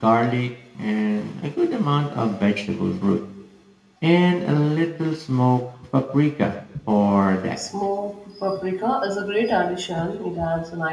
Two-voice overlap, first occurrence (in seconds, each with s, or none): none